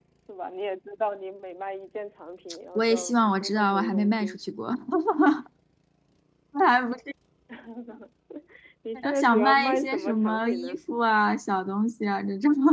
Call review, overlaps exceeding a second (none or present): present